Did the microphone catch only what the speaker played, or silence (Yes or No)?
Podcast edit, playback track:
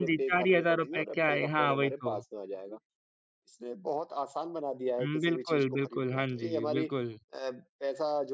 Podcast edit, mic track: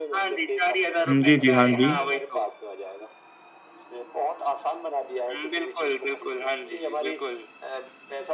No